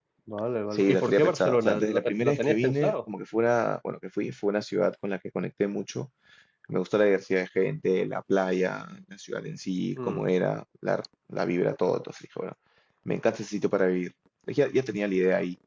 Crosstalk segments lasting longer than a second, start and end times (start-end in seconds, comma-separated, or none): 0.7-2.9